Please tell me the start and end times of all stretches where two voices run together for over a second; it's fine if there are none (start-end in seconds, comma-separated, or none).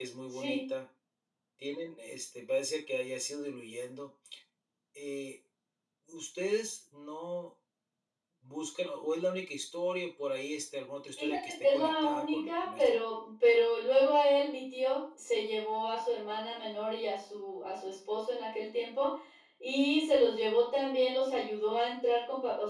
11.2-12.9